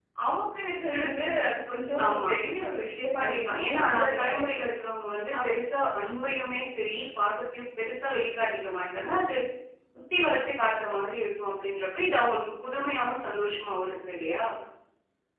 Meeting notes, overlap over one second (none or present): present